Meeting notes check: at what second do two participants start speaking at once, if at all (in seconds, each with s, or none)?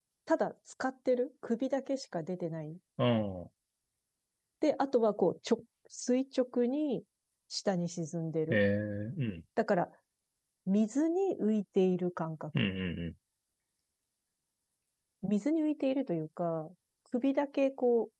none